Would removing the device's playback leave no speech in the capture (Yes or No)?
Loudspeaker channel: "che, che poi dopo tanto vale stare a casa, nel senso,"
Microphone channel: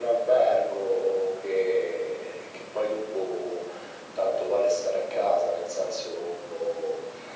Yes